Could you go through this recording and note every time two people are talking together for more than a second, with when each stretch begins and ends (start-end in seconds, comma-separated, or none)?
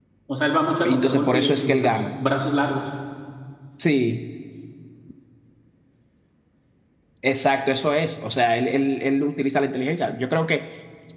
0.8-2.1